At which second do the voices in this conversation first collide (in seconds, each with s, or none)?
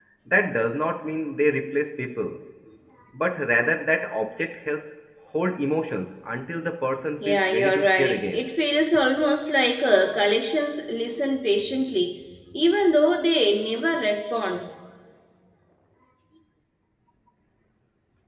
7.2 s